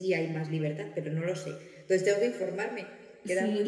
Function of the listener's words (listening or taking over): taking over